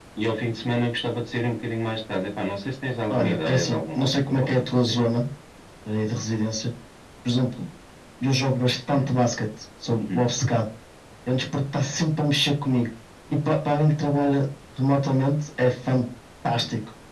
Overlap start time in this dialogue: 3 s

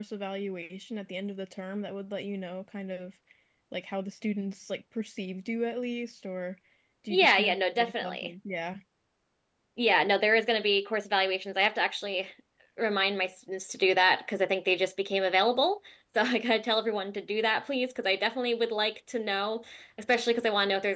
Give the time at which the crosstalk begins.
7 s

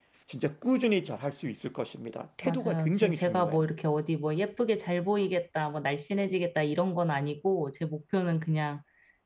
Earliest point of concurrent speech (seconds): 2 s

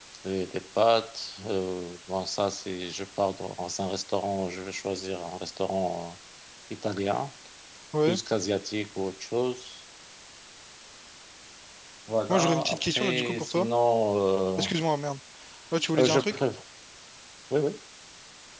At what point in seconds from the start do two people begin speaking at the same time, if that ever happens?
12 s

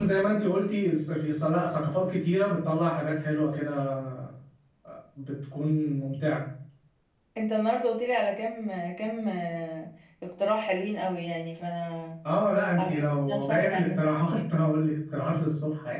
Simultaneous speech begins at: 13 s

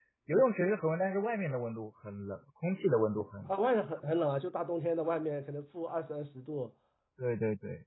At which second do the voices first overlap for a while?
none

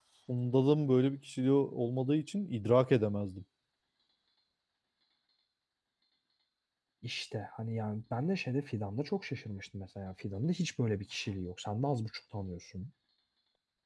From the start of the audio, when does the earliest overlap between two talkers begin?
none

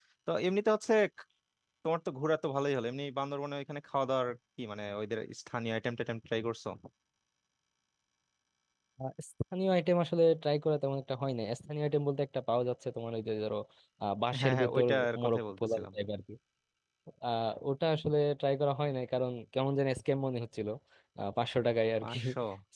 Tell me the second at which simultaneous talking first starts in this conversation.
14 s

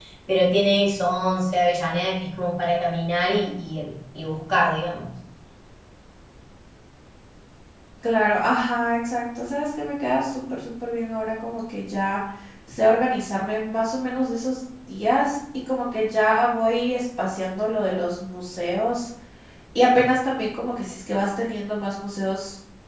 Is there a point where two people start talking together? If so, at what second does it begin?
none

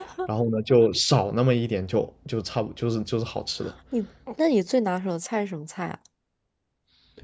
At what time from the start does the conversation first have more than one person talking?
none

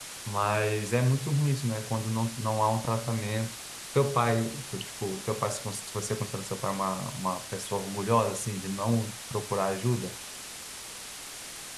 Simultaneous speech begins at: none

